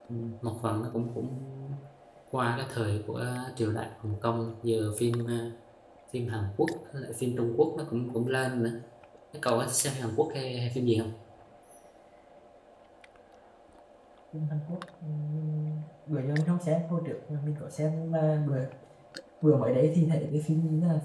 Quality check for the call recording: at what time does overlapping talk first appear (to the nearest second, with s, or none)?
none